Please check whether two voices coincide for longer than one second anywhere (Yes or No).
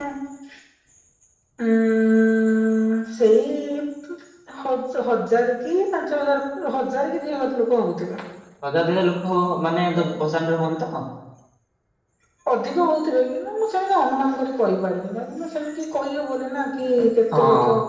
No